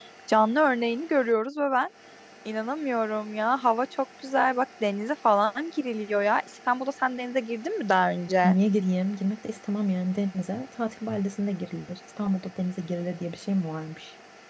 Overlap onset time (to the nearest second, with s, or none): none